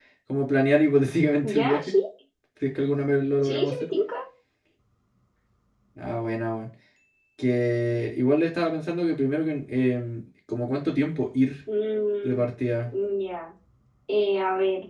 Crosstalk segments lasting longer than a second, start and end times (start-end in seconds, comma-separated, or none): none